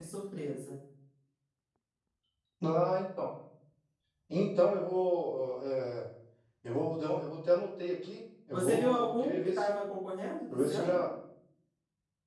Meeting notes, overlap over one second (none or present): present